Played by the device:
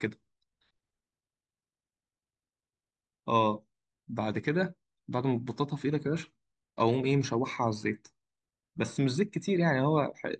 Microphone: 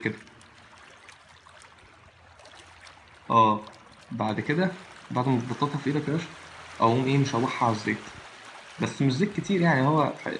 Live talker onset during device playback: none

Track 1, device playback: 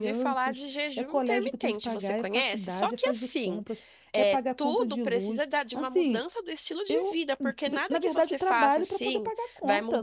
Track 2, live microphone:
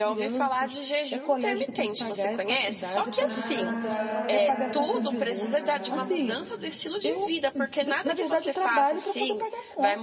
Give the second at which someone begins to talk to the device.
3.0 s

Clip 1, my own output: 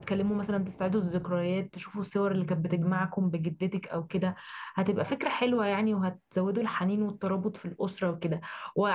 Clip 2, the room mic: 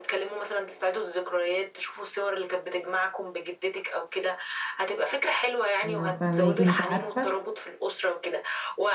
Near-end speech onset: 5.8 s

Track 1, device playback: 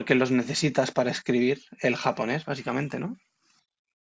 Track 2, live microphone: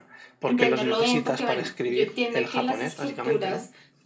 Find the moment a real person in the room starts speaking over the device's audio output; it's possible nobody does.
0.4 s

